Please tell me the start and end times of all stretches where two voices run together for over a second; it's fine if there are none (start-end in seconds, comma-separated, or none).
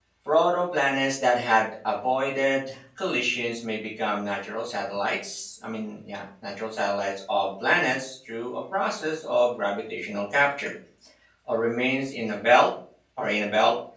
none